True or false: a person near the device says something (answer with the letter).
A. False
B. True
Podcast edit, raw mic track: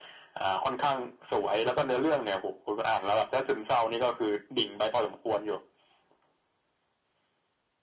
A